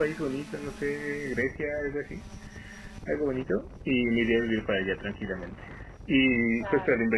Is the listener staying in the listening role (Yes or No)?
Yes